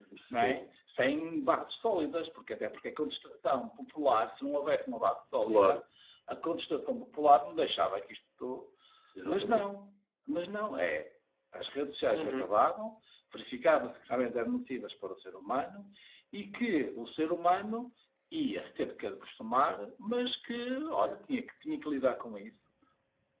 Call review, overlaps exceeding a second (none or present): none